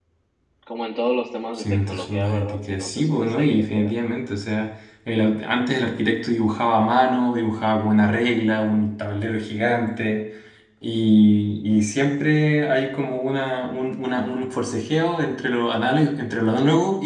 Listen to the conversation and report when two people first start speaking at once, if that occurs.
1.6 s

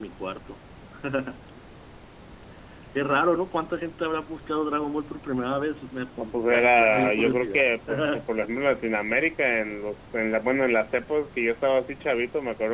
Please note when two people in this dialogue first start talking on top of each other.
6.2 s

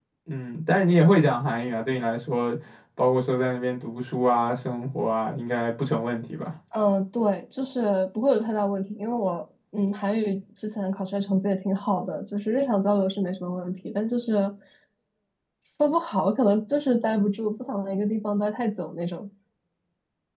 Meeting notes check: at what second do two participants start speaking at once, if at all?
none

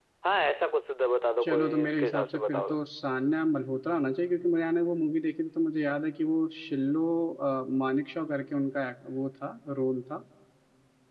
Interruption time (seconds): 1.4 s

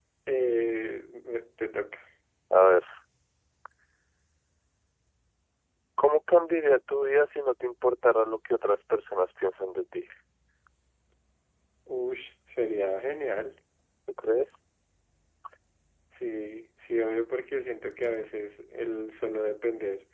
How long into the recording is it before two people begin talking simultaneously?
none

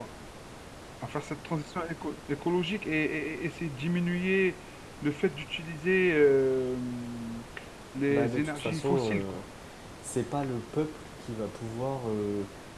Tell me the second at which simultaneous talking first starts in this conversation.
8.1 s

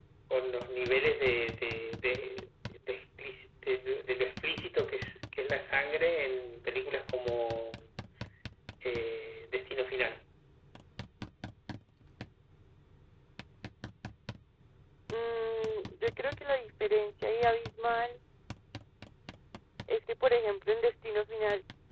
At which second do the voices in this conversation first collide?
none

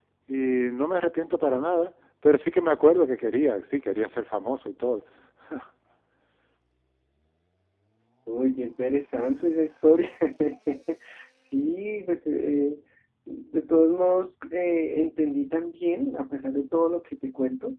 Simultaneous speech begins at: none

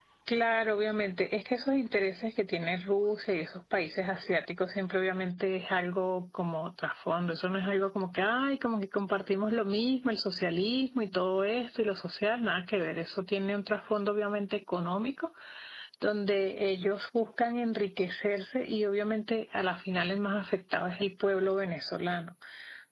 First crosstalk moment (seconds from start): none

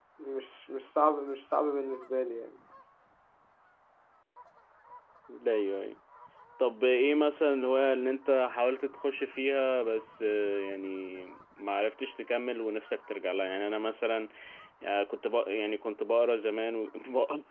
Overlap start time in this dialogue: none

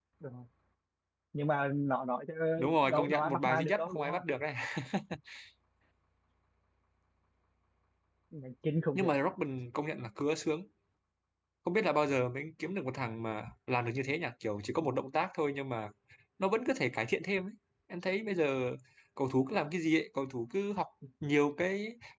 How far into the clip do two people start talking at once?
2.8 s

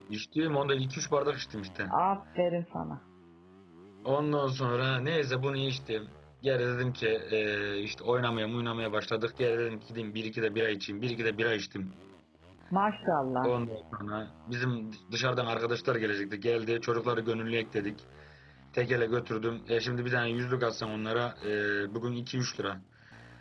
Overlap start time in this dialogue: none

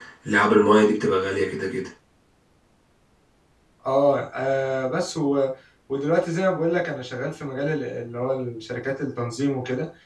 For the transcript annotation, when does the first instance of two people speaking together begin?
none

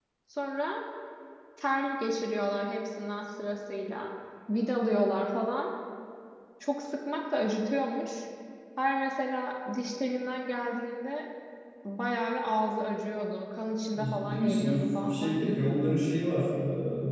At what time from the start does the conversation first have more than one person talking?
13.9 s

